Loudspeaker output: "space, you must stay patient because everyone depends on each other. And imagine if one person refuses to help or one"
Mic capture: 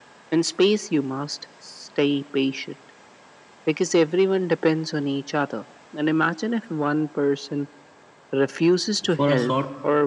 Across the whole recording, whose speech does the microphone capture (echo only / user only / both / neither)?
both